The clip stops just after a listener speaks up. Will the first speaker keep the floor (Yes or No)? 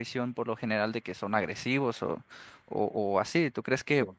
Yes